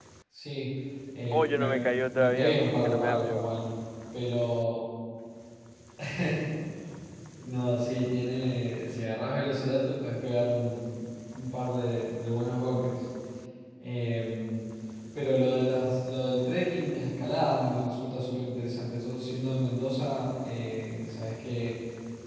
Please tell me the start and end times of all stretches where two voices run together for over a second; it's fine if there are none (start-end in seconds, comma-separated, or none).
1.3-3.5